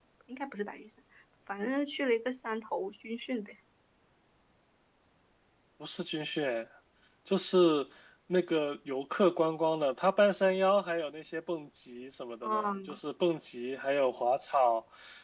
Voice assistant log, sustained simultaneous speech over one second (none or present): none